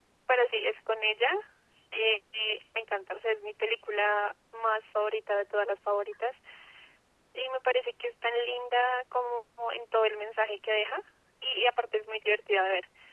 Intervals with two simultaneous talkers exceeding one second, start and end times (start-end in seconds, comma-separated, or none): none